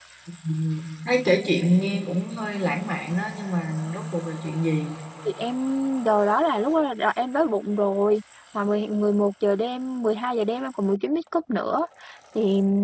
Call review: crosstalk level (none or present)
none